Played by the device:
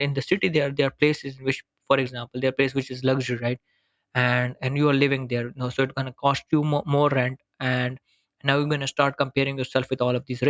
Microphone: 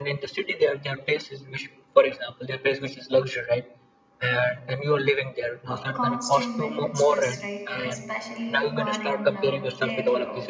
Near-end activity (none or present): present